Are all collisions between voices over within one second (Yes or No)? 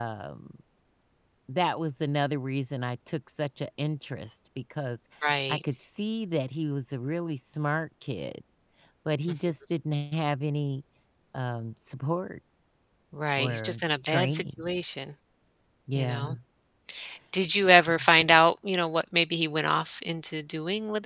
No